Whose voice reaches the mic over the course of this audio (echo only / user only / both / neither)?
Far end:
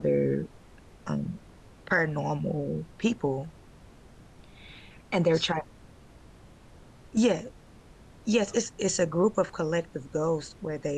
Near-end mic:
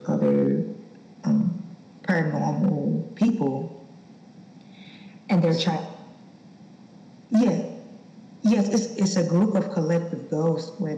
echo only